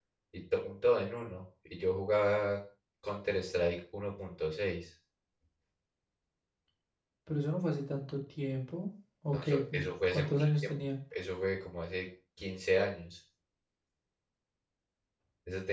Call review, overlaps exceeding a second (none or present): present